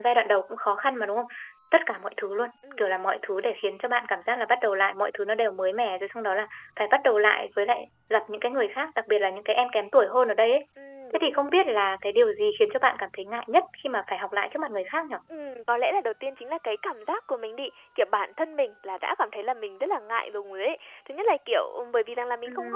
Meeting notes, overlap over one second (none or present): none